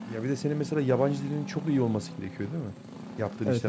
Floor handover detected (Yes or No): Yes